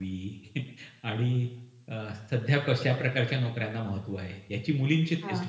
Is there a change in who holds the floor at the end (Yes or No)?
No